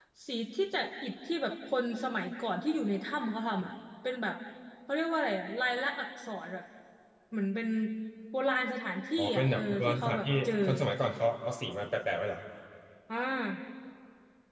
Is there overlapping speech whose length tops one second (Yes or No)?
Yes